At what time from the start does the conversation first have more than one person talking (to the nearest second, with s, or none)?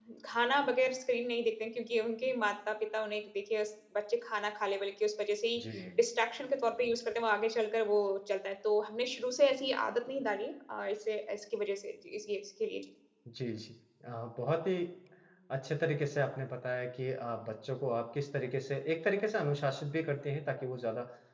none